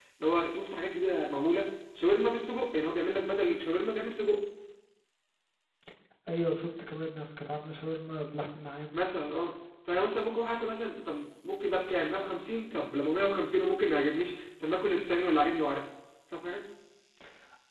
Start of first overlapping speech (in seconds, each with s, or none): none